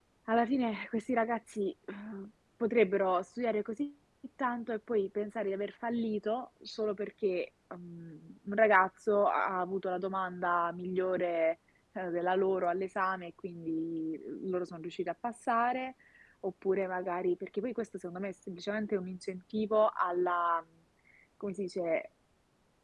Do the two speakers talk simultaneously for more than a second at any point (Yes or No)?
No